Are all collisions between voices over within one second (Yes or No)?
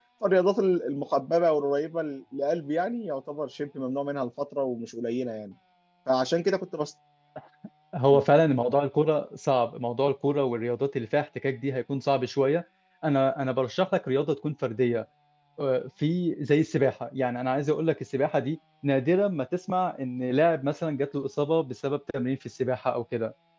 Yes